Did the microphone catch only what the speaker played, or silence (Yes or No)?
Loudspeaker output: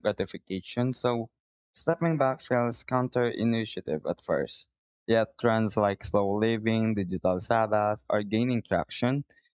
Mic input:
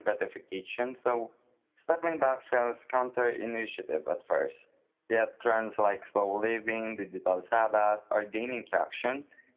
Yes